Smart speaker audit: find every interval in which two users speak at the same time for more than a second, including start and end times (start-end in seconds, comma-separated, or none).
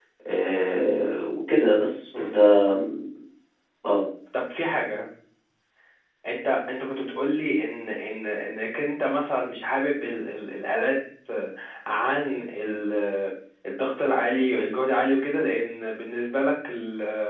none